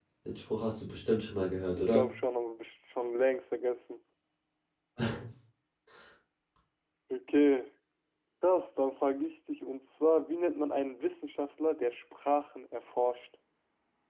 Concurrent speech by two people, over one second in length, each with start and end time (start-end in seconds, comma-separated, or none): none